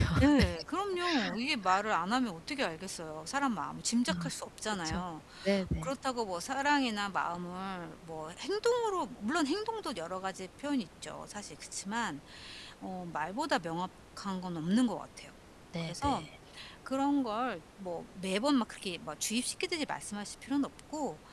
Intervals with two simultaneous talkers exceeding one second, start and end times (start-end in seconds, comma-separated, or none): none